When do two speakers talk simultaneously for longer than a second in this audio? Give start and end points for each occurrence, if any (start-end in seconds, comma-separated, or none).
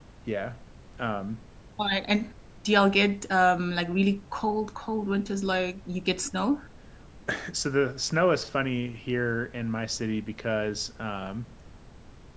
none